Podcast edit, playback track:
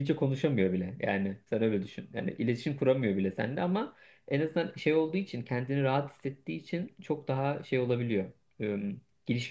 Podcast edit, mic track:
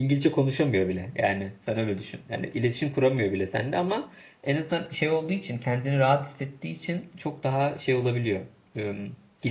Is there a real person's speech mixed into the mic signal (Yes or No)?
No